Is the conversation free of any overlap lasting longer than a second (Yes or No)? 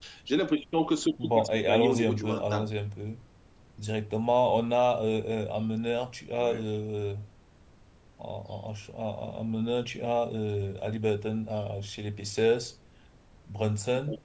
No